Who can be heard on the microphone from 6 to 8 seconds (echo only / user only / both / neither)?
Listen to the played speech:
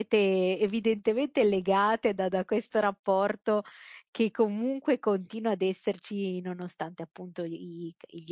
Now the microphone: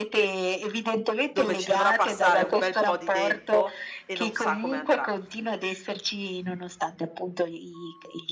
echo only